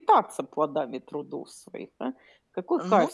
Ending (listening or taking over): listening